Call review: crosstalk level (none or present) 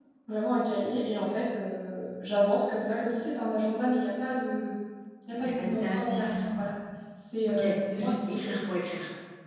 present